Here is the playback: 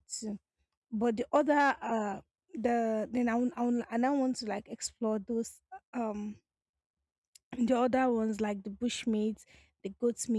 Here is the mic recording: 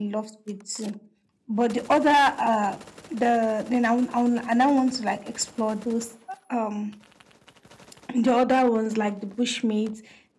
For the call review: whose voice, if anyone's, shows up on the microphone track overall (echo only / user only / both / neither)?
echo only